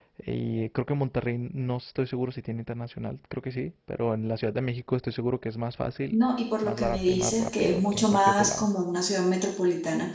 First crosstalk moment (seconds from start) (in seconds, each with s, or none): 6.6 s